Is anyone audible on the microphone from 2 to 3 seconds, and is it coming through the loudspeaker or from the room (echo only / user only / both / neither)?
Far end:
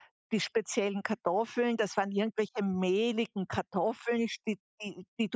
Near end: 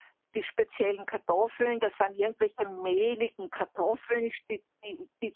echo only